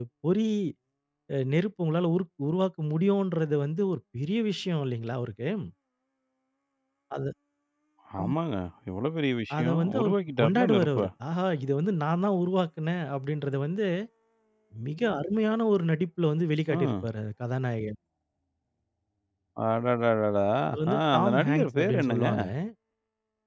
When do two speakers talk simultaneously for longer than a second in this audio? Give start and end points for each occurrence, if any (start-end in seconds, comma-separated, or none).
9.6-11.1, 20.9-22.3